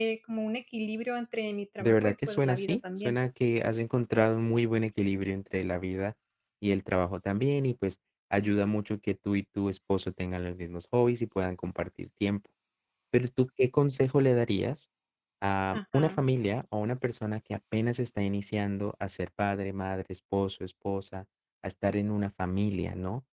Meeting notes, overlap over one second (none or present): present